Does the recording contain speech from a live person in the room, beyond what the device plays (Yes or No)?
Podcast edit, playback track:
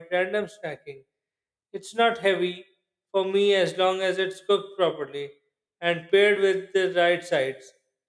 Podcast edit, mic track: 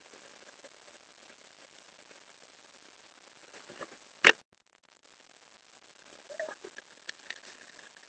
No